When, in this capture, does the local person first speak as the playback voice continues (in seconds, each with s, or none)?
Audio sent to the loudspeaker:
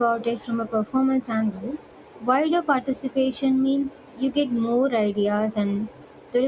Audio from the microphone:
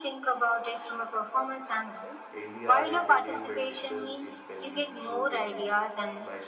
2.3 s